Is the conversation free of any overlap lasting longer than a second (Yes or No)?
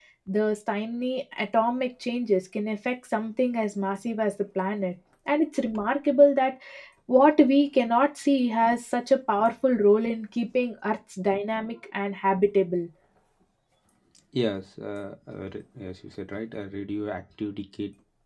Yes